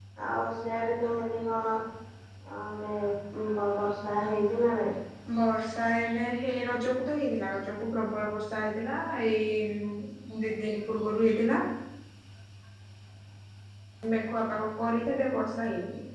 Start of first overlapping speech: none

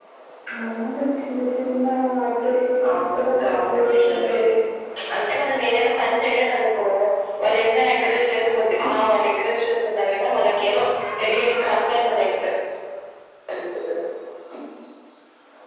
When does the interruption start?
2.9 s

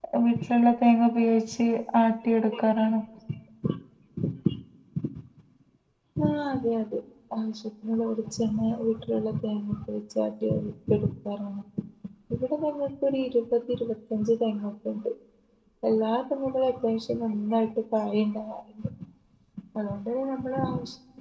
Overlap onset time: none

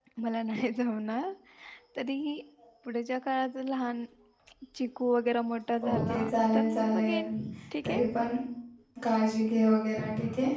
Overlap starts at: 5.8 s

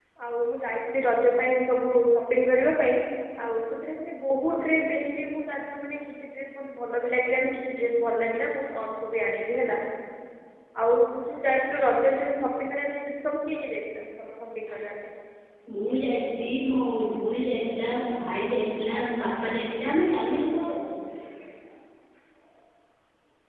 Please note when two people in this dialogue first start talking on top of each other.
none

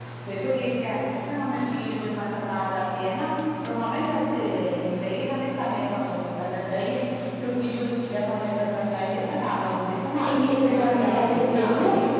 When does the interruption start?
10.3 s

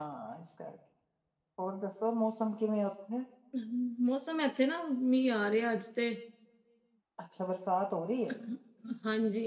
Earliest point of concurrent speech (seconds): none

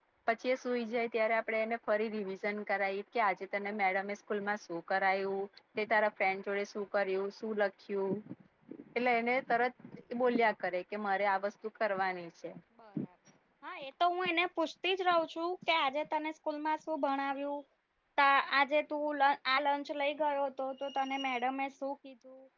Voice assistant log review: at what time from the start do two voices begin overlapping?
none

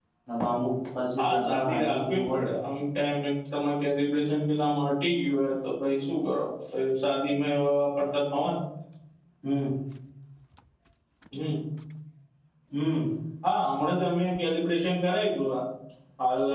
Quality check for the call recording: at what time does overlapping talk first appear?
1.2 s

